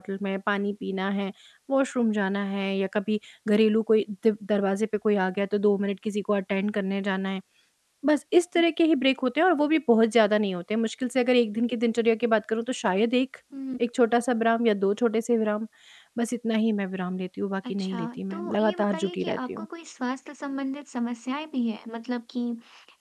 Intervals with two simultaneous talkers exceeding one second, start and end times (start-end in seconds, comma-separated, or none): 17.7-19.7